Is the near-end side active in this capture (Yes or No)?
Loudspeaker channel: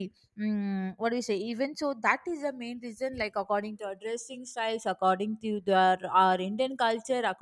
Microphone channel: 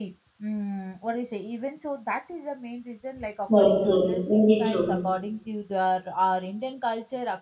Yes